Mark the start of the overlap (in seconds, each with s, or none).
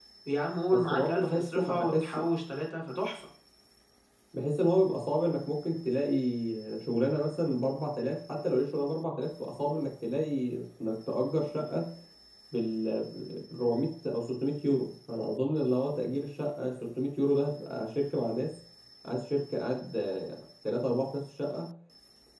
0.7 s